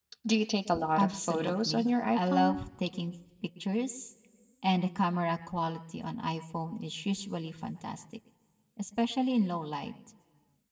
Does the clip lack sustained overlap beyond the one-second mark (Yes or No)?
No